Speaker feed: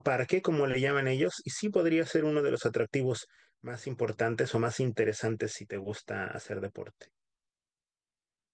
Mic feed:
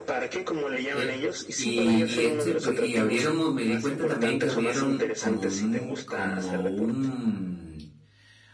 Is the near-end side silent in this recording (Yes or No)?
No